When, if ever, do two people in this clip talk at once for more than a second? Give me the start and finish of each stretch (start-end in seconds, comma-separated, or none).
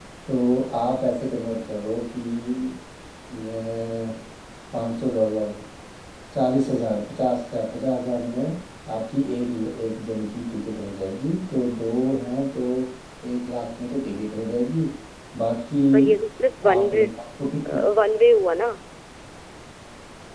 none